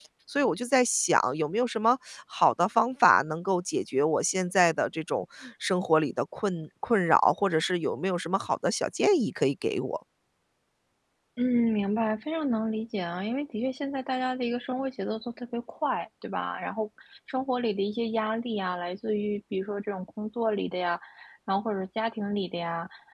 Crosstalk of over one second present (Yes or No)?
No